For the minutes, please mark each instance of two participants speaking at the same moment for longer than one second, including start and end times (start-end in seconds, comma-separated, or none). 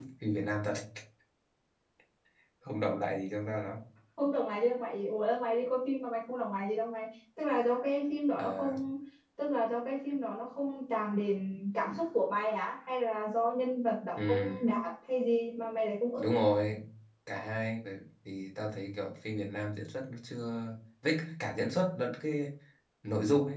none